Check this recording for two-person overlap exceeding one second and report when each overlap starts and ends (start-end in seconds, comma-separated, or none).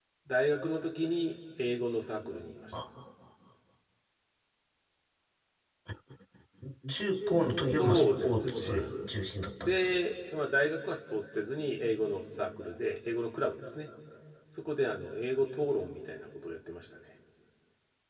7.6-8.9